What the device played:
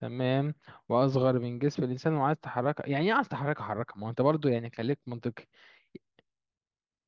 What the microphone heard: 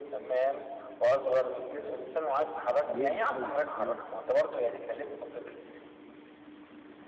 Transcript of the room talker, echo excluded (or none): ليه محاولة يعني ليه محاولة